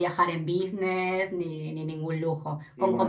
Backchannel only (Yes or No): Yes